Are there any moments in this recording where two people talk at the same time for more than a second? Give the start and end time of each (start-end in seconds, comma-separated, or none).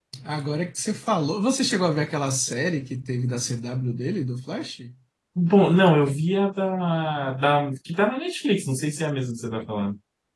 none